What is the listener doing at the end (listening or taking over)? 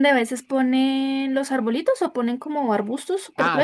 taking over